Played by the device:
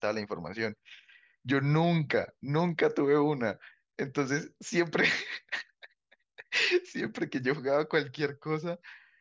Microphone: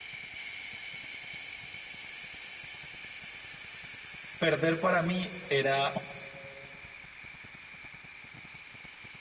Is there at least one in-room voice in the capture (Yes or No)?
Yes